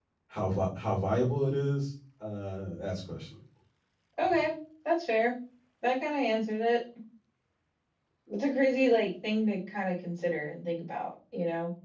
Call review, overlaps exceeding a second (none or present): none